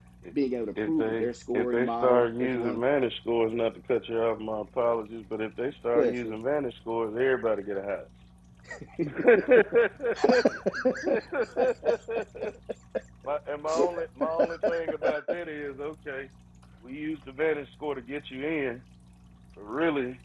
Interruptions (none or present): present